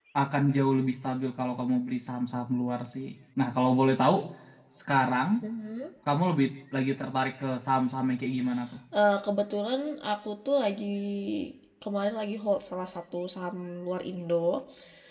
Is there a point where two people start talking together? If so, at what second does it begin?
none

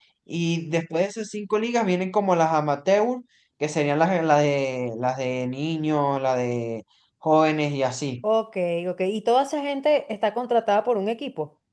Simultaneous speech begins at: none

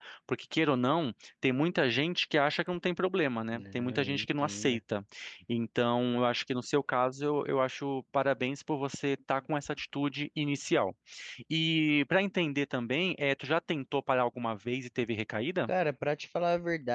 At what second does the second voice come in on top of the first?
3.5 s

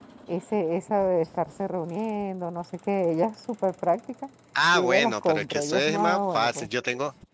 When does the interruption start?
4.7 s

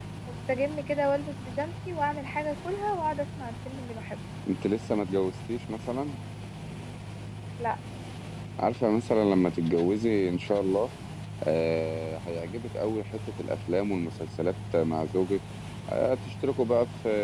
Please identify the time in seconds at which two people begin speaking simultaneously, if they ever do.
none

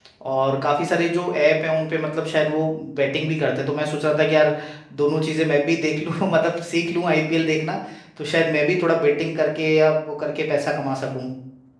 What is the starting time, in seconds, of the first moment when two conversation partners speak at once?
none

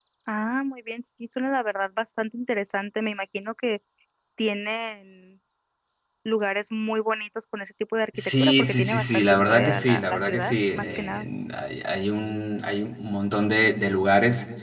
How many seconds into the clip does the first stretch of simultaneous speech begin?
8.1 s

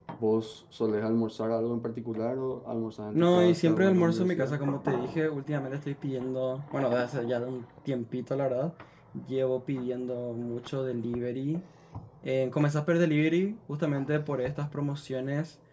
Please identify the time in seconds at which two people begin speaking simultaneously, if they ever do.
3.1 s

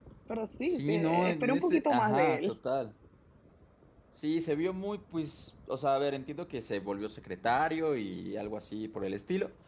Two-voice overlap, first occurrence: 0.6 s

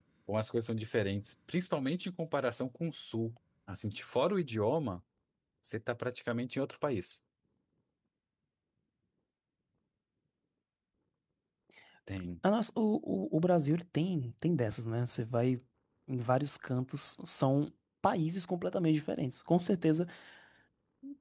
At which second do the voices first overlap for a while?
none

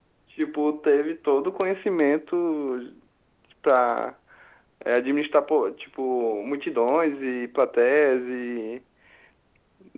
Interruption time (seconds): none

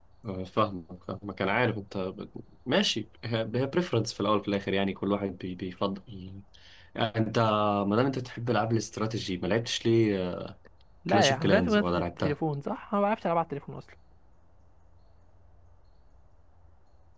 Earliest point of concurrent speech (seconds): 11.1 s

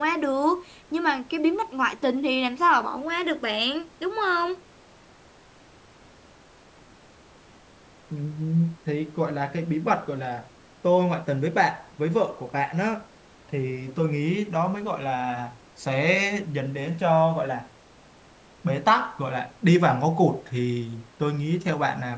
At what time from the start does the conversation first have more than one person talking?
none

